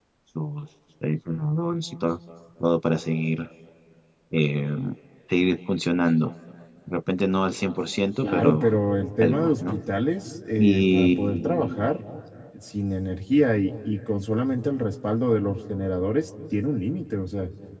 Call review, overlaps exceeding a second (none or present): present